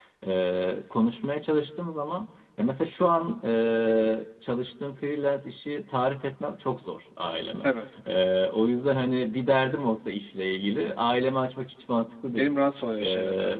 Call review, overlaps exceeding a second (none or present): none